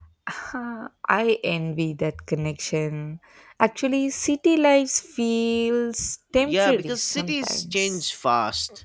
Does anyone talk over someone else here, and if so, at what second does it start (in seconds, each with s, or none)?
6.5 s